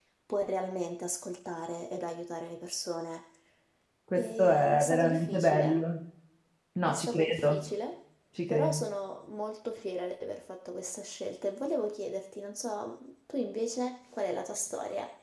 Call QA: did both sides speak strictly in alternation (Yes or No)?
No